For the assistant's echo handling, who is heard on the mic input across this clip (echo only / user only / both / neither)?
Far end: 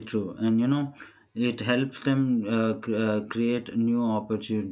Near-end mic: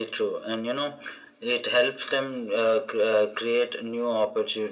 echo only